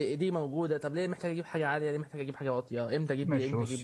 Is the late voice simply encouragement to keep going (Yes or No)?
No